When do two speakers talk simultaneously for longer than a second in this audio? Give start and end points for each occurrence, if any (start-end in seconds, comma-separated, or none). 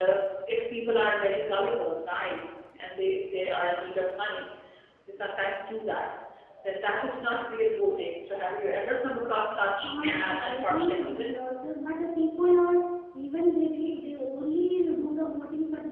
9.8-11.4